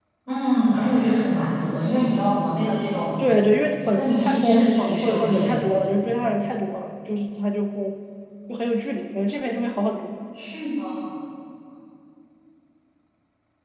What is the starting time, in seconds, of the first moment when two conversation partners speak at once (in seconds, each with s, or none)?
4.0 s